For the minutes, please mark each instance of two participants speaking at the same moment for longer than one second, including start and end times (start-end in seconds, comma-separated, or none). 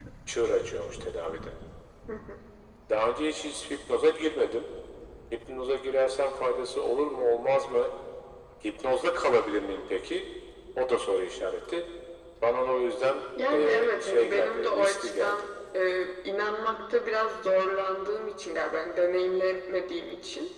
13.5-15.4